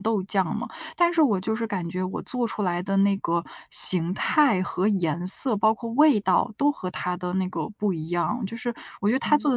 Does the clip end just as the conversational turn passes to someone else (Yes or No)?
No